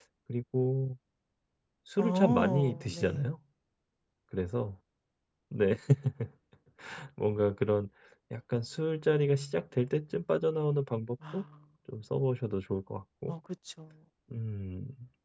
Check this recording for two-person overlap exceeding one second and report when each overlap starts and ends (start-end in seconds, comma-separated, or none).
2.0-3.2